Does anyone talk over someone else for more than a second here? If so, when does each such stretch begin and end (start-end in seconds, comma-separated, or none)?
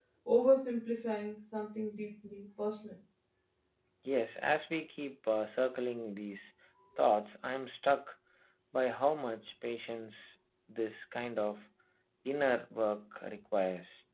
none